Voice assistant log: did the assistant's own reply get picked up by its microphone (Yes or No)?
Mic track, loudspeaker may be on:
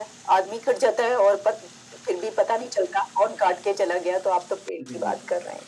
Yes